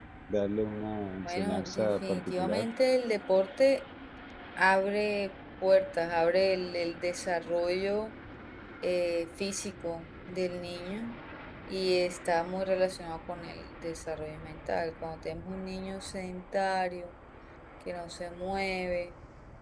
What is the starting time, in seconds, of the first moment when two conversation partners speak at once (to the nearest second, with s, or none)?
1 s